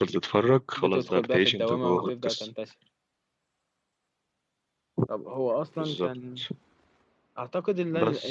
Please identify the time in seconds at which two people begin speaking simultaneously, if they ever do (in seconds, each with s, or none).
0.8 s